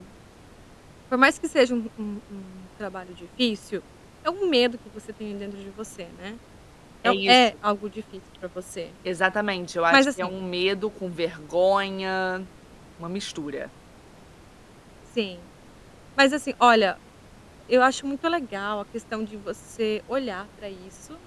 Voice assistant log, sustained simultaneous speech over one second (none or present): none